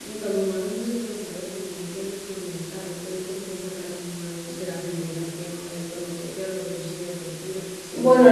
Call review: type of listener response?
taking over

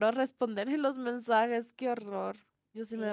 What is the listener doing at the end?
taking over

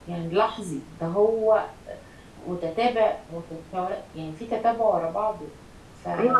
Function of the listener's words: taking over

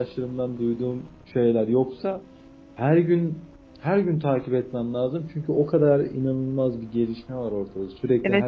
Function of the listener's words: taking over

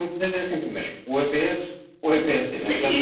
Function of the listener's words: taking over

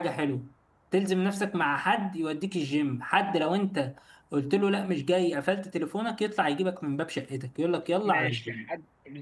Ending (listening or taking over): taking over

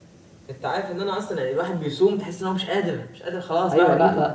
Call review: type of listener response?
taking over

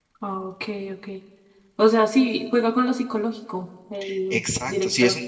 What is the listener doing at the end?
taking over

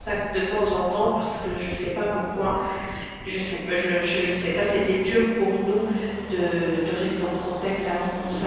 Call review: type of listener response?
taking over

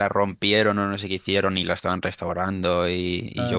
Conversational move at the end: listening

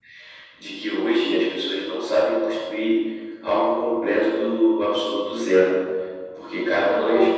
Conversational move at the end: listening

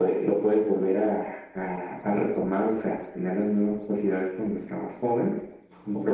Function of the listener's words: listening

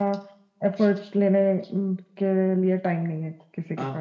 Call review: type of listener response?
taking over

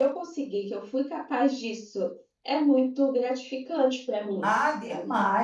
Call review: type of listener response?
taking over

